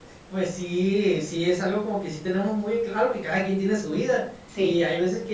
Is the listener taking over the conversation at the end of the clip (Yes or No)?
No